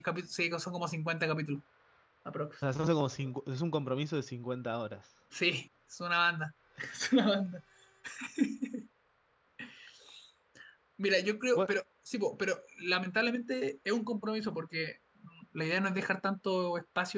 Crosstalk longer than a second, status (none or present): none